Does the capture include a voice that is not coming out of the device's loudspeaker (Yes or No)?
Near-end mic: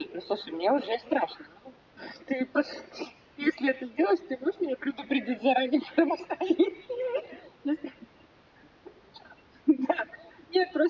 No